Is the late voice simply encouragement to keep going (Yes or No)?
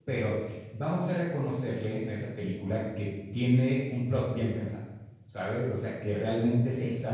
Yes